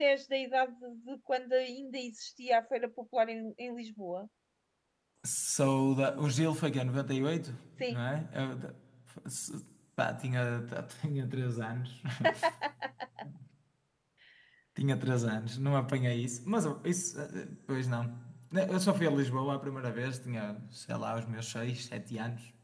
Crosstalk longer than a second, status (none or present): none